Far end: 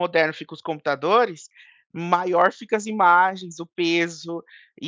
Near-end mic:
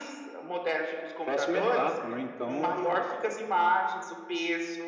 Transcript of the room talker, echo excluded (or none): próxima etapa, né. Então